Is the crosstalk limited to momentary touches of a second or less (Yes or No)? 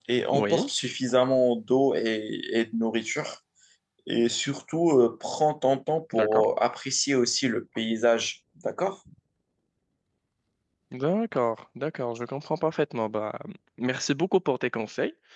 Yes